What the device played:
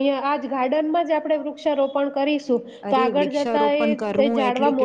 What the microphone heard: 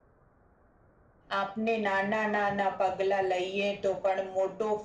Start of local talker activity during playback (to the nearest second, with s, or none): 1 s